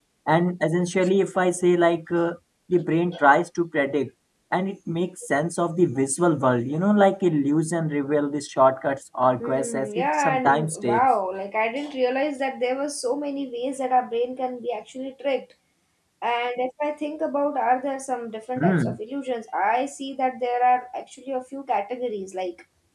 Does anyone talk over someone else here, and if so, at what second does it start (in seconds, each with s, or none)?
9.4 s